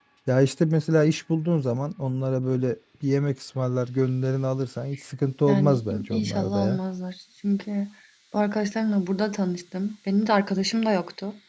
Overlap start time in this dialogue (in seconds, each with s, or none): 5.5 s